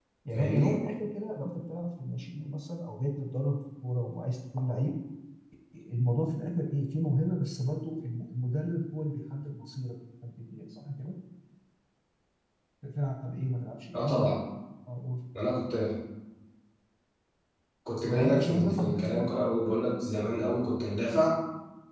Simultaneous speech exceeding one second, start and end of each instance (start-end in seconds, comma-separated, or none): 18.0-19.3